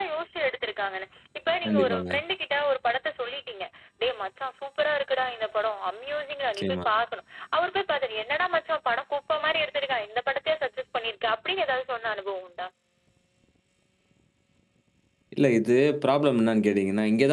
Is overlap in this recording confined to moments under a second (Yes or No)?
Yes